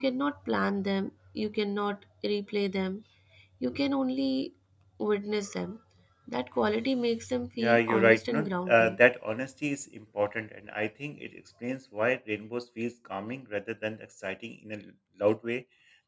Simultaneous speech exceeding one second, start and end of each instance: 7.6-9.0

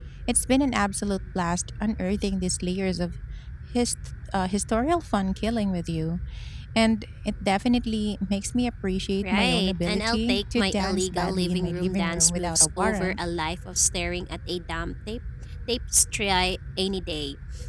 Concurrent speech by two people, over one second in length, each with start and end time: 9.2-13.2

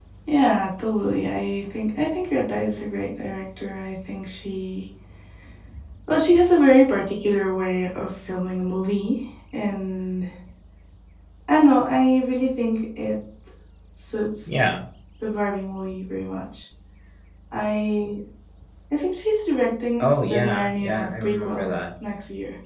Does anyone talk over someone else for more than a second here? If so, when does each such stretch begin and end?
20.0-21.7

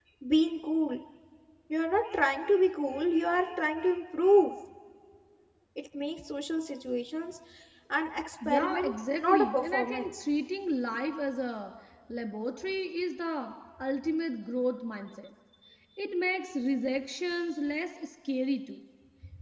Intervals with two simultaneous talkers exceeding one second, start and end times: 8.4-10.2

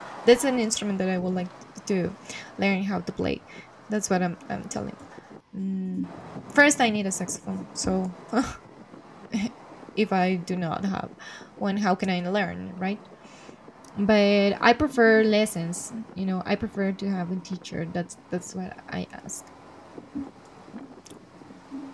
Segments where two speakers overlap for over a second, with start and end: none

